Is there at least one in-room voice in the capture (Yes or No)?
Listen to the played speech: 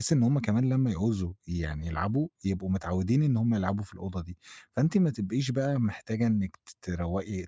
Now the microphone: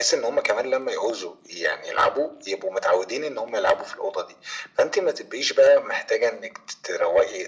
No